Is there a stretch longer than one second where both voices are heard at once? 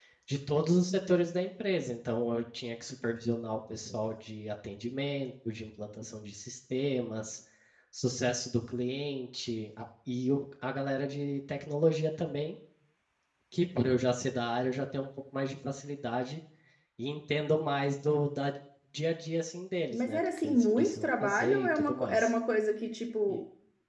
Yes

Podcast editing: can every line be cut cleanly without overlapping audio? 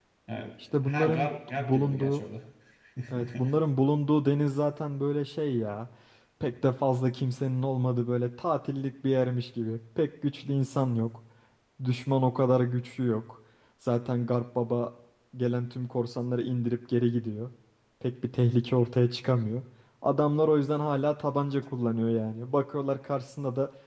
No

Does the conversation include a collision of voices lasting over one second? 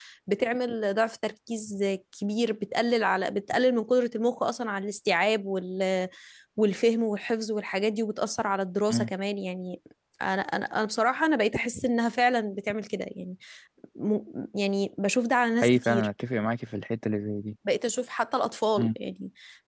No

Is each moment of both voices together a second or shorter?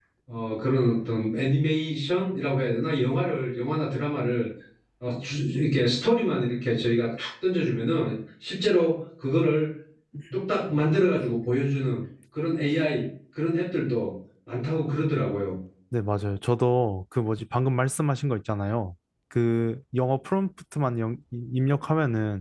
Yes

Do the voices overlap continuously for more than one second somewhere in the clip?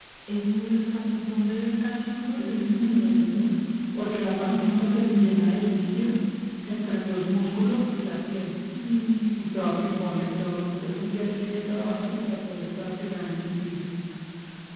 Yes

